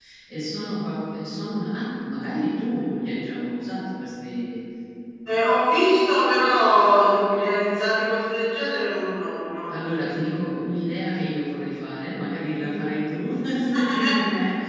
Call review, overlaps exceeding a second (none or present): none